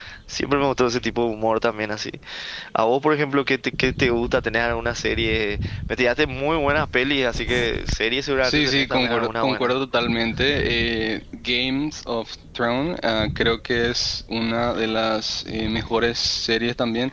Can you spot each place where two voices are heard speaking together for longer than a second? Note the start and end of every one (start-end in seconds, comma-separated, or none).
8.4-9.7